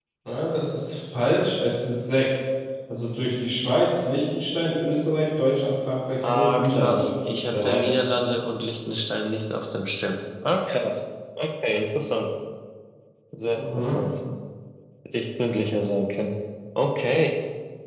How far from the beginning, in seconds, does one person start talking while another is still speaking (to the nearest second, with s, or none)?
6 s